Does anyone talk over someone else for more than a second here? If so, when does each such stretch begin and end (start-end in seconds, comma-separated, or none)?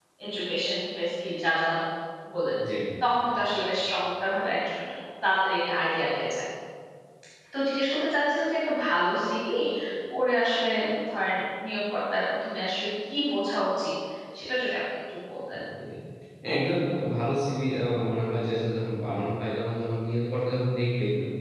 none